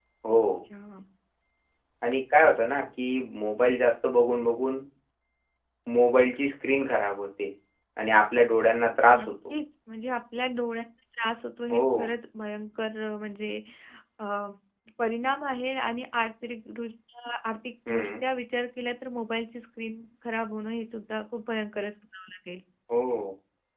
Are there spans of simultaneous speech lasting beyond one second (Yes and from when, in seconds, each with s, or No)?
No